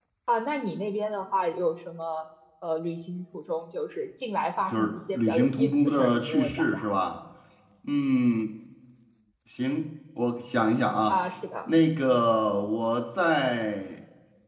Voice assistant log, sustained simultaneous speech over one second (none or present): present